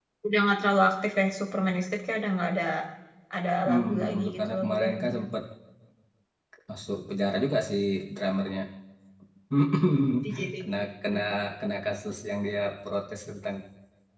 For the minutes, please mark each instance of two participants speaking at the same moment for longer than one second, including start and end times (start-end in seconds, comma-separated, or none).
3.7-5.1